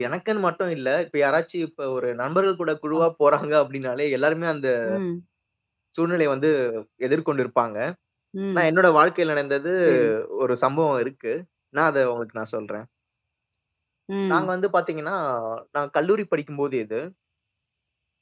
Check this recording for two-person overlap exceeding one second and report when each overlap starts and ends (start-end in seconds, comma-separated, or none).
none